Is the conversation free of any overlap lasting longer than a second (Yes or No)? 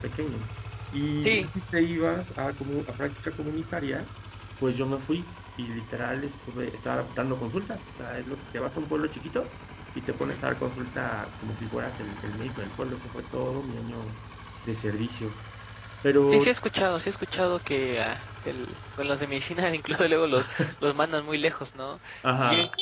Yes